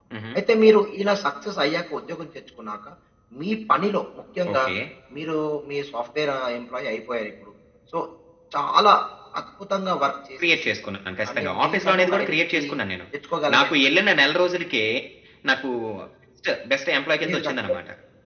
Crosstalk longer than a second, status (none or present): present